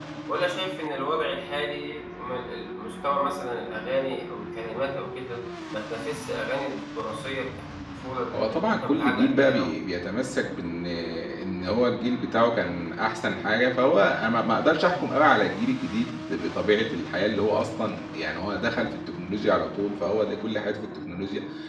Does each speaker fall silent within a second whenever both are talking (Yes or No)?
No